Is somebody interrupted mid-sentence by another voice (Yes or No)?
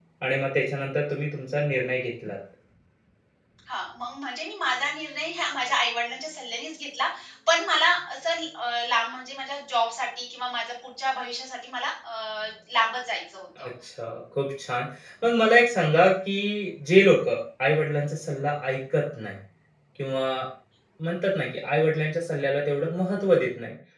No